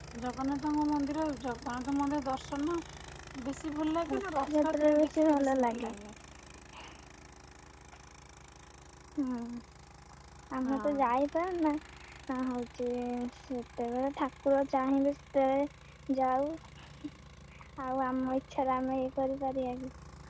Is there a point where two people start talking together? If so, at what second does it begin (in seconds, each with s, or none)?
4.1 s